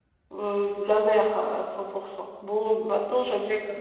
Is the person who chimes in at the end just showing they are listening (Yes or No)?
Yes